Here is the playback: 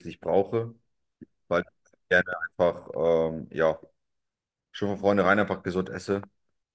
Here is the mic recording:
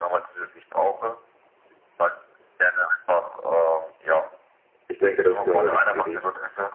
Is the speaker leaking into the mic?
Yes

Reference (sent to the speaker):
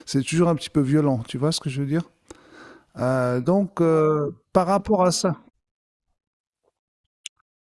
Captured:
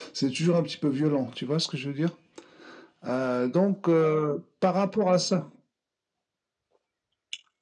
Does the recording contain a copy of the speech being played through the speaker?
Yes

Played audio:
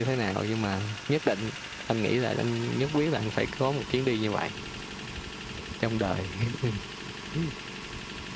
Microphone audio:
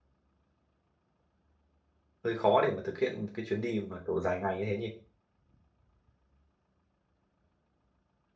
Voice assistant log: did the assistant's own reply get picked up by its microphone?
No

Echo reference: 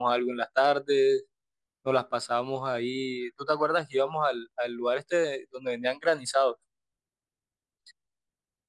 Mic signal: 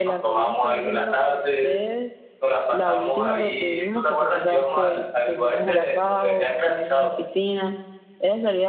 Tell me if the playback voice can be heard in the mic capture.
Yes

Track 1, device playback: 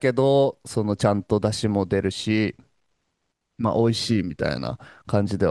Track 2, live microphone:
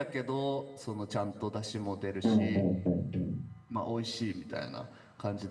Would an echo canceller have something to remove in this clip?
Yes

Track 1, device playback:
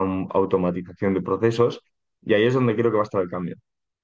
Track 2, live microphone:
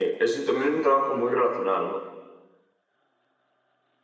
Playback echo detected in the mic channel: No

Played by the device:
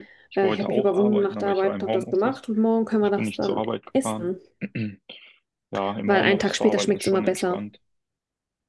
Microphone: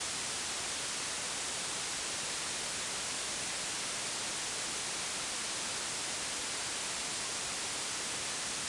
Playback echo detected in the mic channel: No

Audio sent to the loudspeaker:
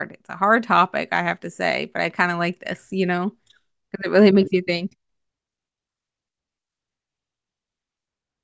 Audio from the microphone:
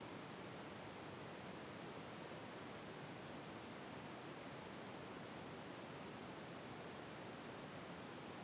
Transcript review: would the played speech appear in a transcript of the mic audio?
No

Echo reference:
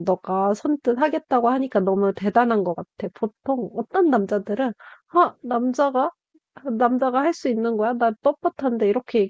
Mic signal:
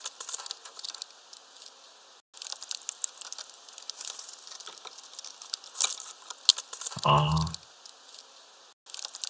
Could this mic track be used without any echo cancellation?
Yes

